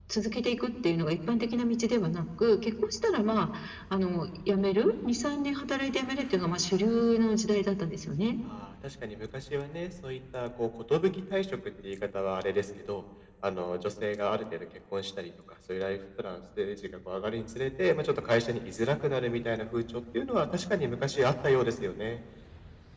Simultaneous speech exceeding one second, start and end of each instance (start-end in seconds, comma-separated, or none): none